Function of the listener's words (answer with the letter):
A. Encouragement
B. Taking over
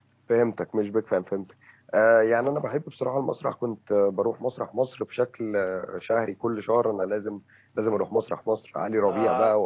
A